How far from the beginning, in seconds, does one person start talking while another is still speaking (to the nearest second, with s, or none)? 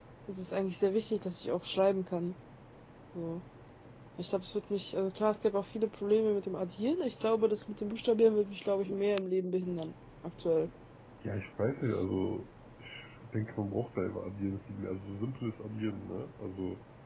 none